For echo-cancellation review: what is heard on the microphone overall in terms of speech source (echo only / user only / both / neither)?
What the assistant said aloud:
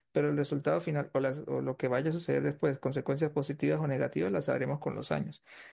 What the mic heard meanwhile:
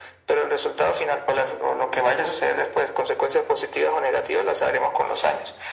echo only